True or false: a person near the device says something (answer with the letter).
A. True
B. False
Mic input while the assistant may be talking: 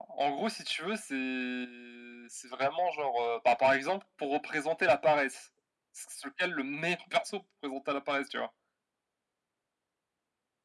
B